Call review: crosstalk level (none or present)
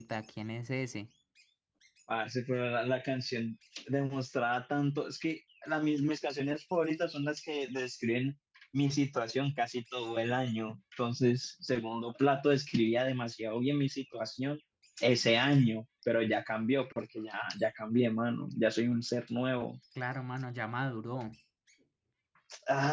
none